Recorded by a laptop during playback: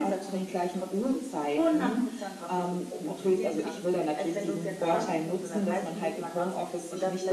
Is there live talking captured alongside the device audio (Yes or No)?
Yes